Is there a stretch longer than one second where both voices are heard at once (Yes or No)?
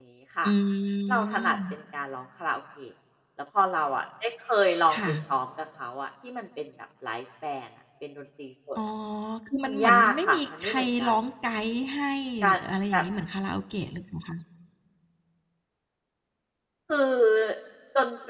Yes